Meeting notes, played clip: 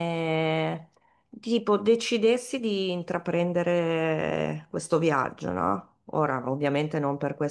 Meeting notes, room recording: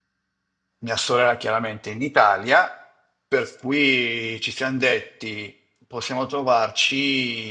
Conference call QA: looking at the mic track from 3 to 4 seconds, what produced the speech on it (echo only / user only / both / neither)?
user only